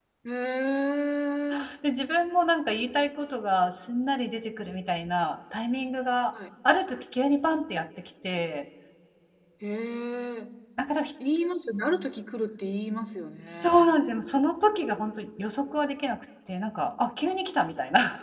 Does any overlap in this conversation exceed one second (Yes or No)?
No